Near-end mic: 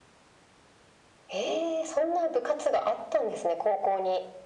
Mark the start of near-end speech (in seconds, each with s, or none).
none